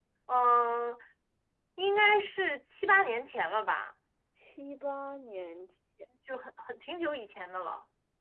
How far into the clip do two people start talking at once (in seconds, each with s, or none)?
none